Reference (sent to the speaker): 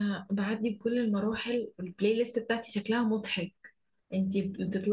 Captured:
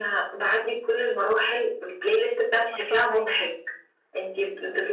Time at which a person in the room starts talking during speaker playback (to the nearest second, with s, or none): 3 s